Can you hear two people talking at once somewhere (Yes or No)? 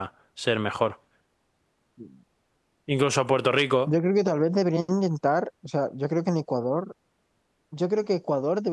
No